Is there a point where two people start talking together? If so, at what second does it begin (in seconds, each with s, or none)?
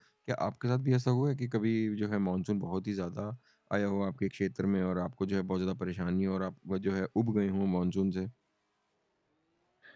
none